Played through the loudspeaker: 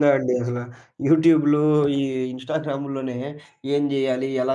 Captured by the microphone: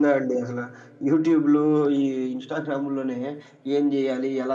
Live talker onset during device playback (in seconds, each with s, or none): none